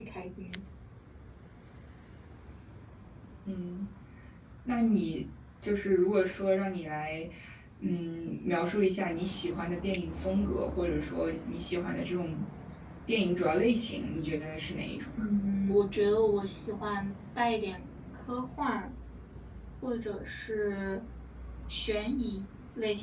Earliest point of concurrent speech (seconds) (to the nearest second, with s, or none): none